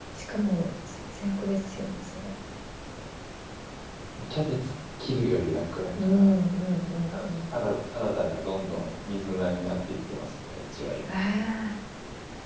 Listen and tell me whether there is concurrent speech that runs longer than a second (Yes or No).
No